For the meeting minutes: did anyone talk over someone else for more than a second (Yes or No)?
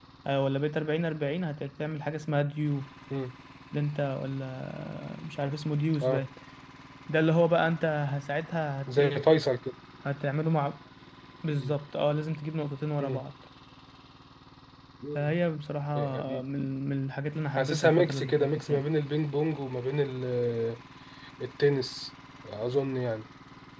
Yes